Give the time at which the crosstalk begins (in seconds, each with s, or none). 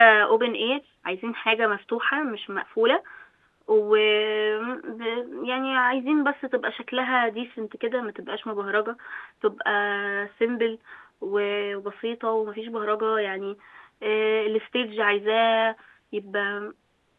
none